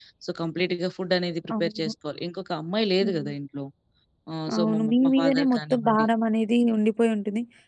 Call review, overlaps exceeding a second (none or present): present